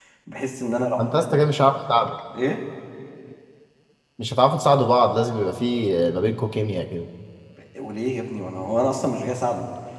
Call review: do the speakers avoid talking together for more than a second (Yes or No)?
Yes